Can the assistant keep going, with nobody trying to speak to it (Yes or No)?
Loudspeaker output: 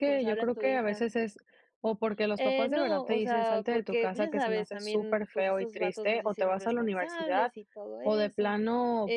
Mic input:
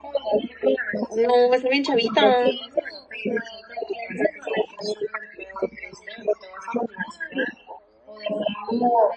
No